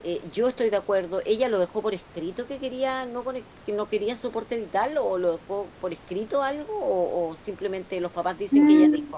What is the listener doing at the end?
taking over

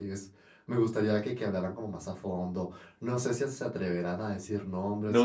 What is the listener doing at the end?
taking over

